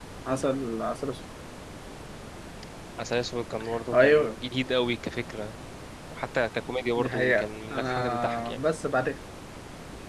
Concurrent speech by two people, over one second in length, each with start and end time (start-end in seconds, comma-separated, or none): 7.0-8.6